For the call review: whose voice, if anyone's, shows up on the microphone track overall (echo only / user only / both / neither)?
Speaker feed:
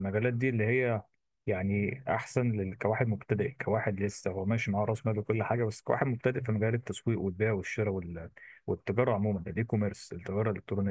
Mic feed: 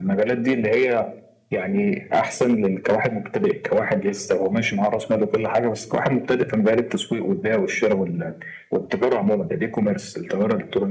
echo only